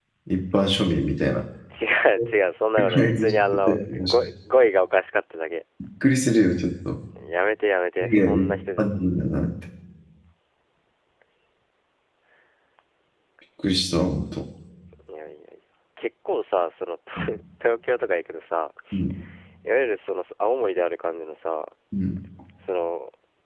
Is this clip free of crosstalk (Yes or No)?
No